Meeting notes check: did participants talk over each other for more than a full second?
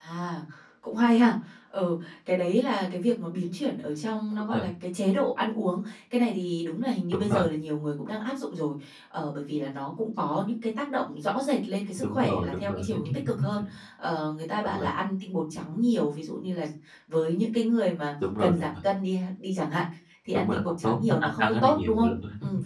Yes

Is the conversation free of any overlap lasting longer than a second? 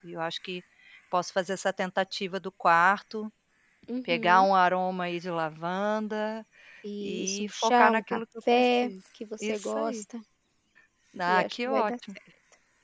No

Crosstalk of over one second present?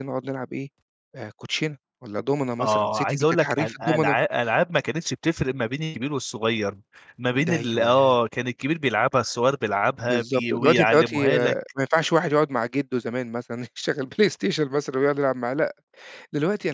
Yes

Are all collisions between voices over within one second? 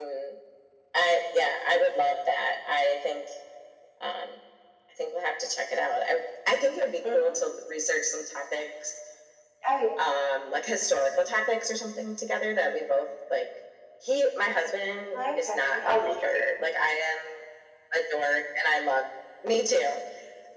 No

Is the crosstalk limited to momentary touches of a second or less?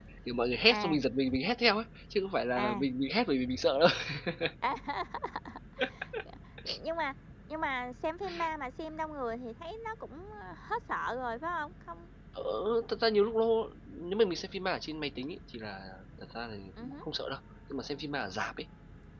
Yes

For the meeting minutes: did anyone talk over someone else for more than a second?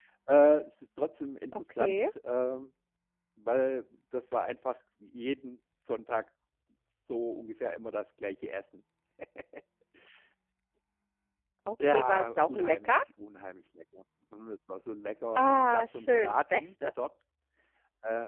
Yes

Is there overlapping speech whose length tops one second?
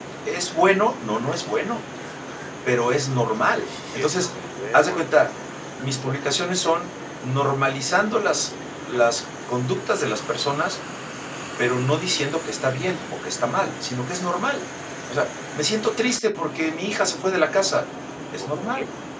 No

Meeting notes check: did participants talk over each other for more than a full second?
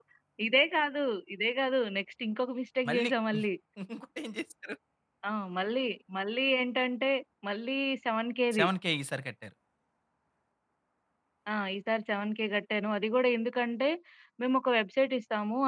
No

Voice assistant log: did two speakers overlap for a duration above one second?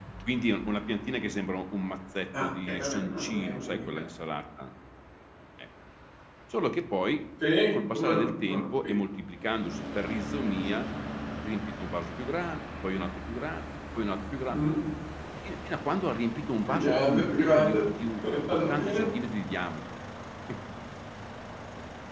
Yes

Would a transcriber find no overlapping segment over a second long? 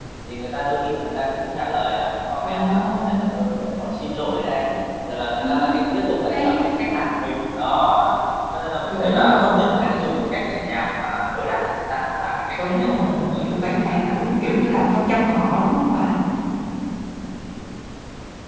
No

